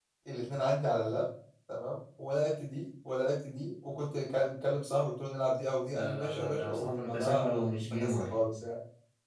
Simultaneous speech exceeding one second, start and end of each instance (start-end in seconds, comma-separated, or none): 5.9-8.3